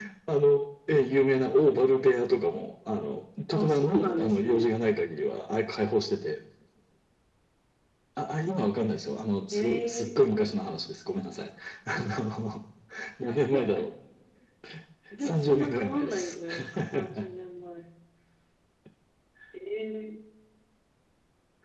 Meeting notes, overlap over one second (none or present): present